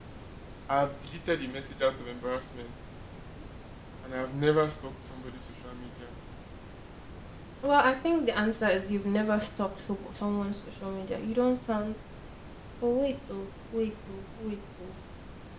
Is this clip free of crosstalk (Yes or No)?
Yes